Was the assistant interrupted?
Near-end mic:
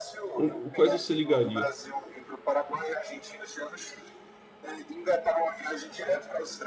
Yes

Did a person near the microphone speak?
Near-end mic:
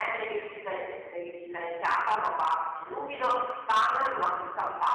No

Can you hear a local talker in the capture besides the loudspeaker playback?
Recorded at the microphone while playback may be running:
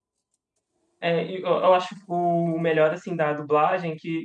Yes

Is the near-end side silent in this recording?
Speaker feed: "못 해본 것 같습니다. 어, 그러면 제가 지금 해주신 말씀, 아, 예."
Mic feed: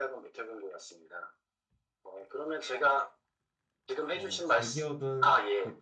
No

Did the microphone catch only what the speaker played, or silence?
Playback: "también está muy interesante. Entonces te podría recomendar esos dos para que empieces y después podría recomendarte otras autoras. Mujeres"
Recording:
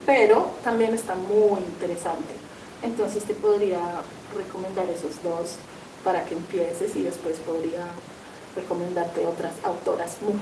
Yes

